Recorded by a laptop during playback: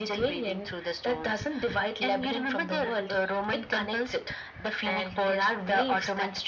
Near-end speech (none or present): none